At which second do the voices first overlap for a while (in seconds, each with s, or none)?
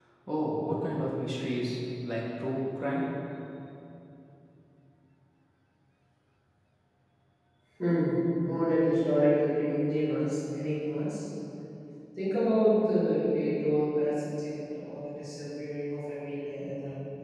none